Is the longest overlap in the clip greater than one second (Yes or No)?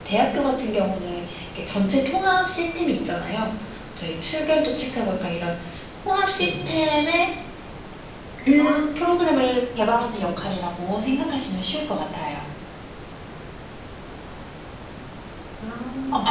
No